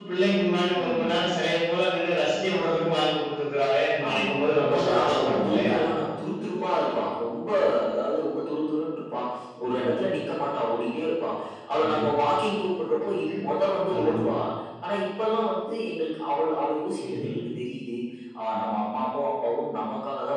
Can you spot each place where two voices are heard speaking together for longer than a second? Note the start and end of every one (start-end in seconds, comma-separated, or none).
4.1-5.8